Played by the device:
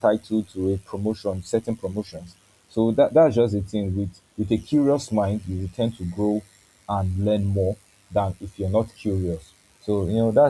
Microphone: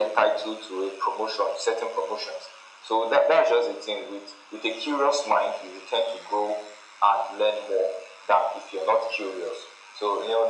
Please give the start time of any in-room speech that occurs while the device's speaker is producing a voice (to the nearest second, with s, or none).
none